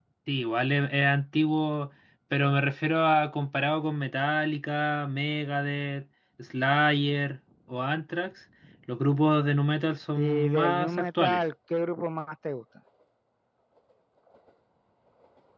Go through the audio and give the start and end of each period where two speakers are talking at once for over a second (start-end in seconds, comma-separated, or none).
10.2-11.4